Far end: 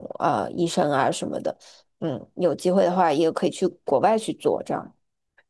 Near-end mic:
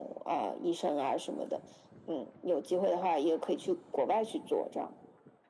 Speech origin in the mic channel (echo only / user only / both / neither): echo only